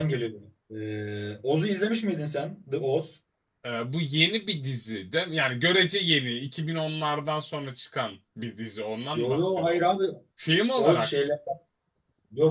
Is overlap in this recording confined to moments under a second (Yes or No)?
Yes